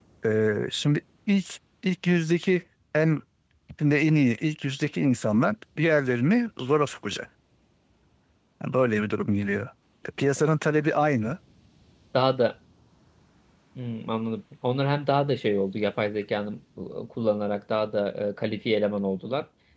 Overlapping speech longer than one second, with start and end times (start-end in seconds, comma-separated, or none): none